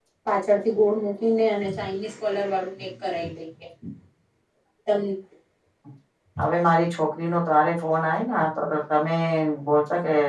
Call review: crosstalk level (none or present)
none